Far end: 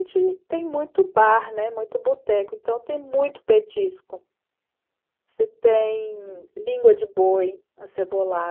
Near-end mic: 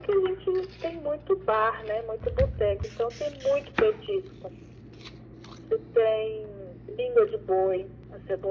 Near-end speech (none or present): none